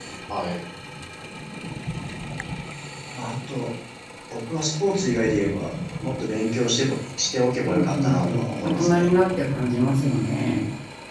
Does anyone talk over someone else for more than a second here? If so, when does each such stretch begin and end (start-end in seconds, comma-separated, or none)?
7.6-9.0